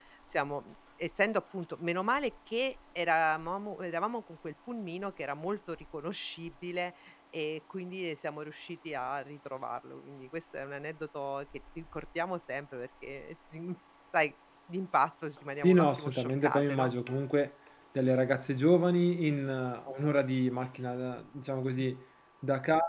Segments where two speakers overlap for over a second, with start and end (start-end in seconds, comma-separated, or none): 15.6-16.9